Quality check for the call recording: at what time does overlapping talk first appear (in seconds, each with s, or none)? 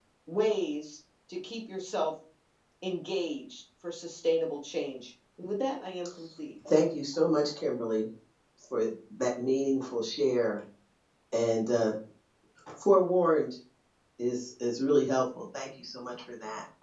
none